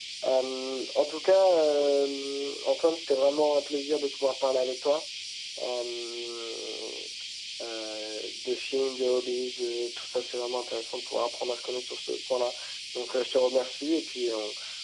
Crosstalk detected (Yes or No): No